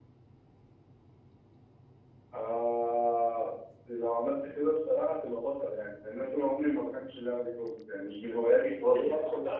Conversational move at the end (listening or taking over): taking over